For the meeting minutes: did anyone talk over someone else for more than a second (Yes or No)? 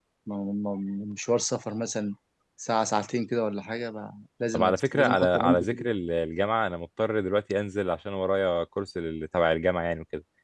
Yes